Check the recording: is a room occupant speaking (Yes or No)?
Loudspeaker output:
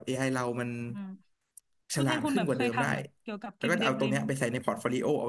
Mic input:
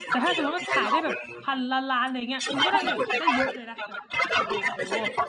Yes